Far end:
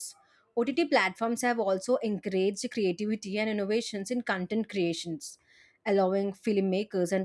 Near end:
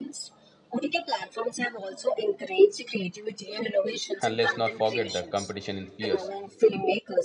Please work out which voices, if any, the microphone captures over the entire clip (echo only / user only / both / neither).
both